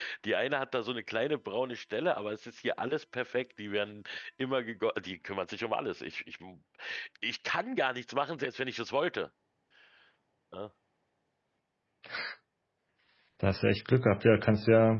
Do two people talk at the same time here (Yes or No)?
No